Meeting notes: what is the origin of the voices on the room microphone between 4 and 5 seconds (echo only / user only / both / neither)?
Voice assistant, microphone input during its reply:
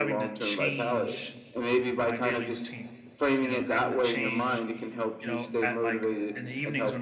both